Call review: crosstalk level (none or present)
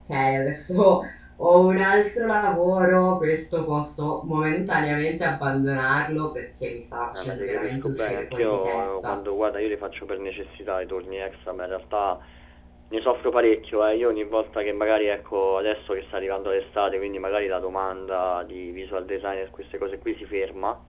present